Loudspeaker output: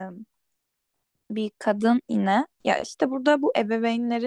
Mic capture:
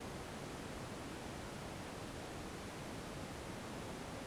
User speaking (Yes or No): No